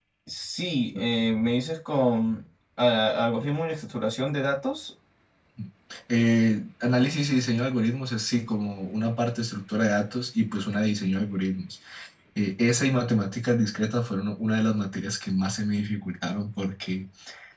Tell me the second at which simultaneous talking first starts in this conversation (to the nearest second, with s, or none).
none